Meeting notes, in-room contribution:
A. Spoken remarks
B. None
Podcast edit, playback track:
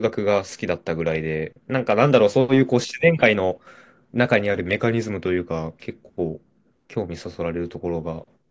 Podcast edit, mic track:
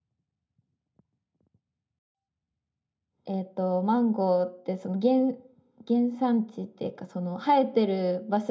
A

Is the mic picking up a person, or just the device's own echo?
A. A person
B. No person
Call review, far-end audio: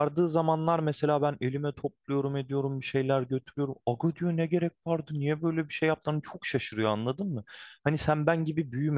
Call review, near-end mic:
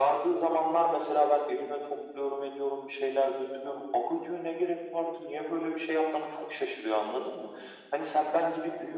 B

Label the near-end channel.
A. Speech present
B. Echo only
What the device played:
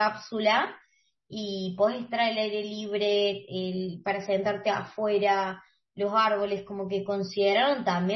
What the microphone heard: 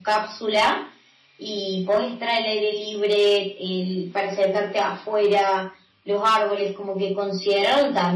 B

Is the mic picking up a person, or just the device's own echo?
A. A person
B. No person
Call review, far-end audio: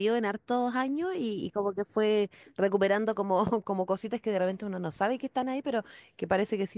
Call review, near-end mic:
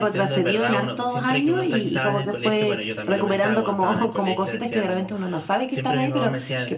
A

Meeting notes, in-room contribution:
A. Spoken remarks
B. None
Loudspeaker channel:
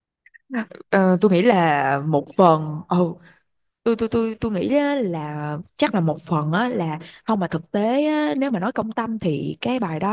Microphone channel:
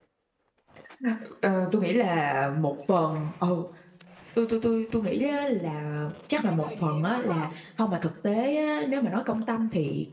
A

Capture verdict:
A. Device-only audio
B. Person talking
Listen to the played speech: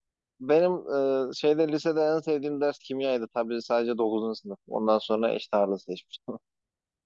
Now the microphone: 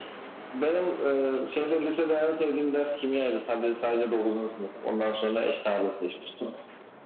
A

